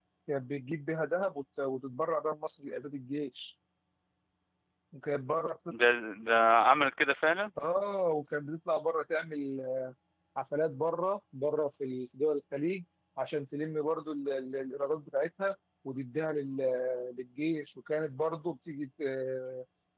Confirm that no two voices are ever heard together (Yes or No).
Yes